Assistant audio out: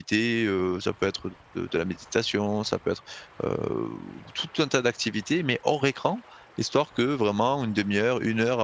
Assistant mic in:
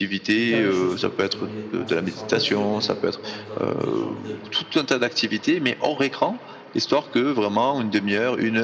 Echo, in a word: present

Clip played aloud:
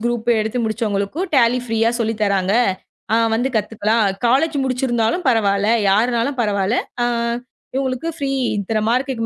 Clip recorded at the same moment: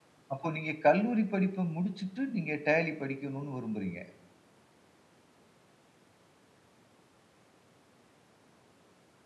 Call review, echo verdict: none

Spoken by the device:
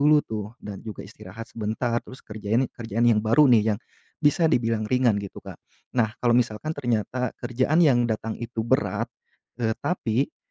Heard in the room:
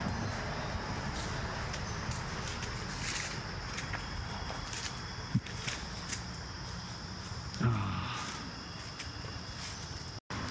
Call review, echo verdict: none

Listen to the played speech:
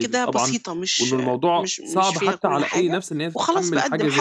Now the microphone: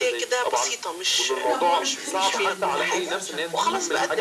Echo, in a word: present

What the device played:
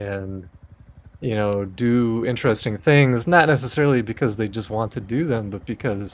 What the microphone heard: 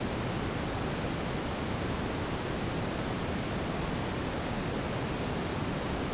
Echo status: none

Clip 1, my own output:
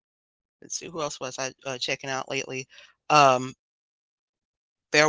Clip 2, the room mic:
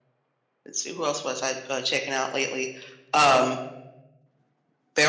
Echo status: present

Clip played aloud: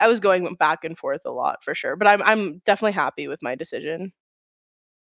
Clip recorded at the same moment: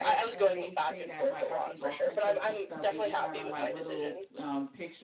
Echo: present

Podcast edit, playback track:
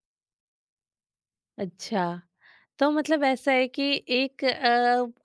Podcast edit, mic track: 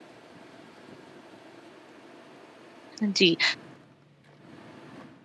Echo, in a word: none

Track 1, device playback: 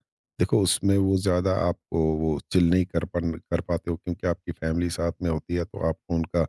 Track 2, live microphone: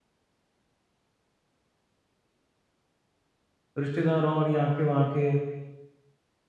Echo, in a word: none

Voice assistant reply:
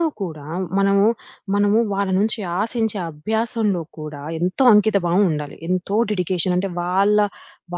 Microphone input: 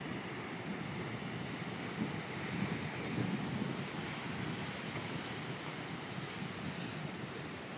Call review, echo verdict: none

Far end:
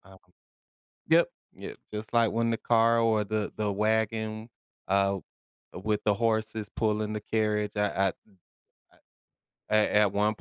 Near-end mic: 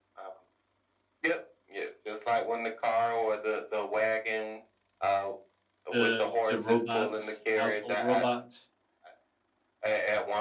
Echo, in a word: present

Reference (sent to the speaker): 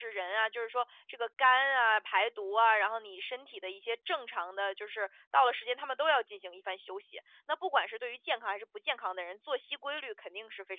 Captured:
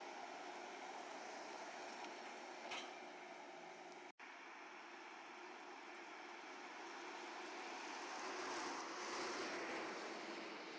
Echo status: none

